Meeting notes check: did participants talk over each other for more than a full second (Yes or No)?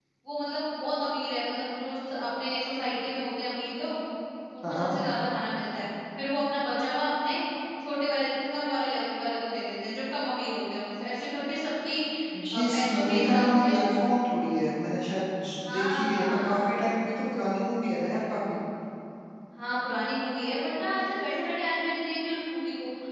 Yes